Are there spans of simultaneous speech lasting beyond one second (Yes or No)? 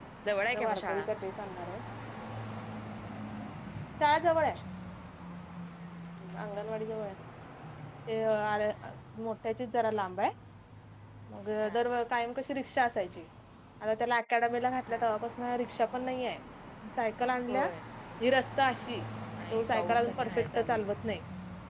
Yes